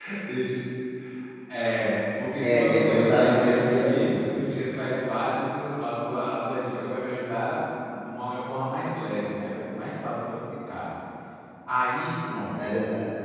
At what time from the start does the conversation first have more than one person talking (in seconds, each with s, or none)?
2.4 s